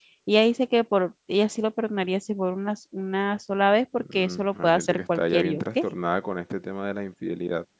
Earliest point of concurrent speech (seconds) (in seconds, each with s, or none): 4.0 s